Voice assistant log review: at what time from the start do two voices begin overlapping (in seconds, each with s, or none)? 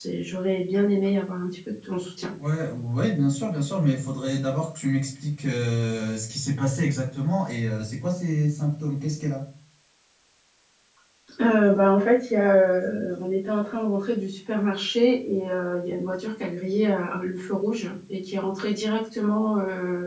none